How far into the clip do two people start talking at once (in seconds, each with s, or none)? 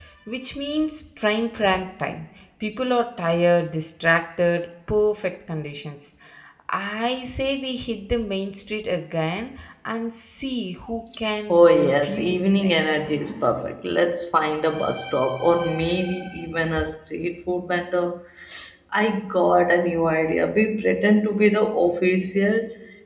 11.5 s